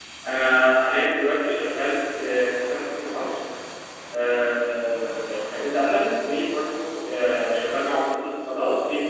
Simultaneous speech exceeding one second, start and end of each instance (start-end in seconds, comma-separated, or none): none